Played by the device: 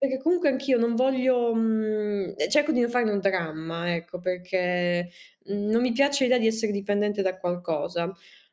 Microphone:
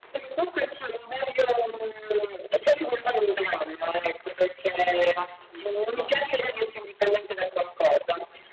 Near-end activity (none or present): present